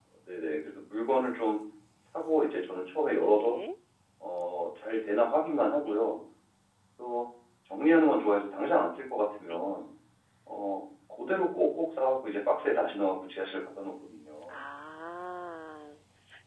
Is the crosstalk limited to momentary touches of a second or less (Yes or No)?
Yes